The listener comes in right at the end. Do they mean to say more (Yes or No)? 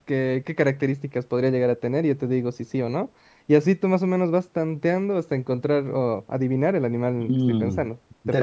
Yes